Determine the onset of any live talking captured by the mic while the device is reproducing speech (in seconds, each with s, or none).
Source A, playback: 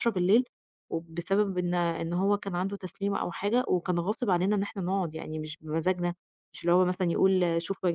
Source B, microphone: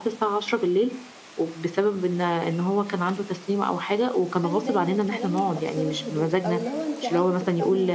4.4 s